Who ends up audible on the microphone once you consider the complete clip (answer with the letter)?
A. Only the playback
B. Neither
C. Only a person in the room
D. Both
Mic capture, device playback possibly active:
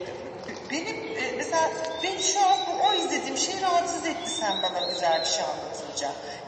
A